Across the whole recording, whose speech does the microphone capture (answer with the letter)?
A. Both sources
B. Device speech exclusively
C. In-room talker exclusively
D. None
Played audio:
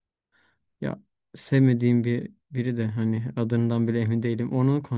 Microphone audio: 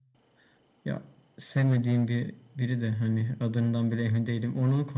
B